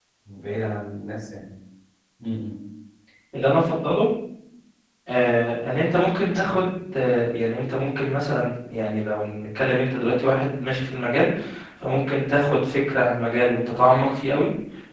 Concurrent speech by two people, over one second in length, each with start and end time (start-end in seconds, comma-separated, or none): none